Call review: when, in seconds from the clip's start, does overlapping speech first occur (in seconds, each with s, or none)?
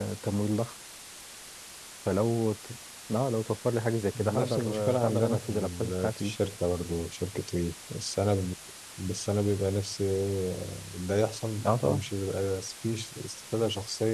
4.1 s